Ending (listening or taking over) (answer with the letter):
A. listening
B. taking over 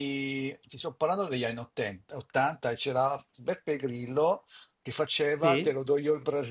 A